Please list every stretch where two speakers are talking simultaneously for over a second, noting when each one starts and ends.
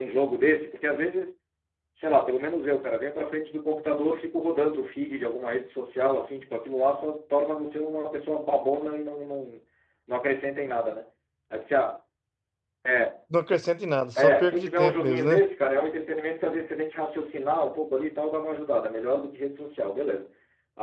14.2-15.4

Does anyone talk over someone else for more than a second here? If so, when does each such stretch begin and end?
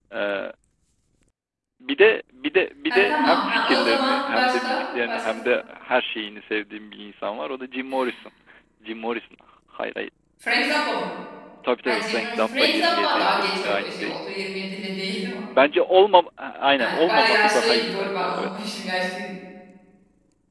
2.9-5.2, 11.8-14.2, 16.8-18.7

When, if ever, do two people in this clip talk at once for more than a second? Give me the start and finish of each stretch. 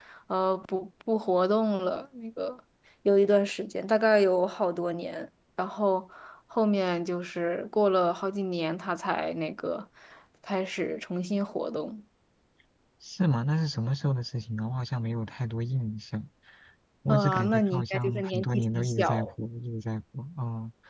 17.1-19.3

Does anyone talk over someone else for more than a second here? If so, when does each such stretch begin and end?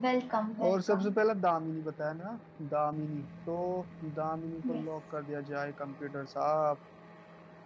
none

